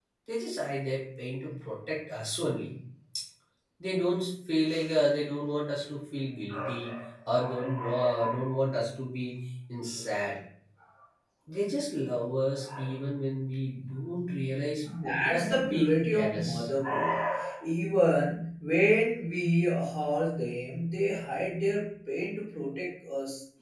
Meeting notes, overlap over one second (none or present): present